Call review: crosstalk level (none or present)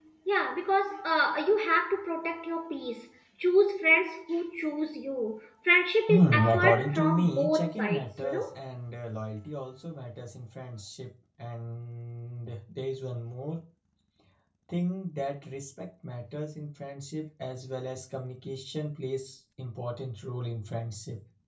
present